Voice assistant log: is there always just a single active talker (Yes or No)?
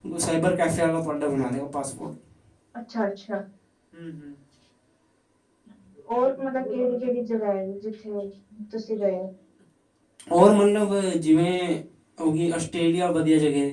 Yes